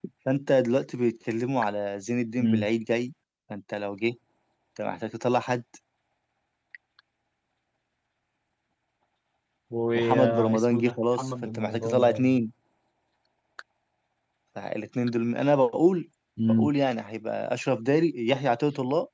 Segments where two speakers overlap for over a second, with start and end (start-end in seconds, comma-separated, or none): 9.9-12.4